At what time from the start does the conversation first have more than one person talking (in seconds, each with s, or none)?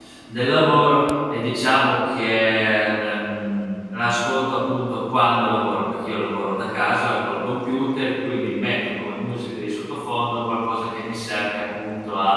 none